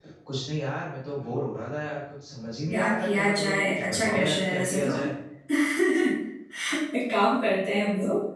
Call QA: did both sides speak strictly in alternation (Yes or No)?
No